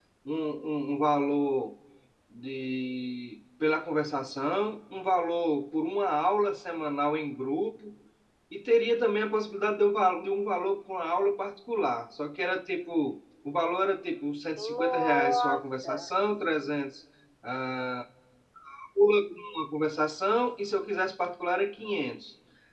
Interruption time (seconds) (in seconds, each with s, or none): 14.6 s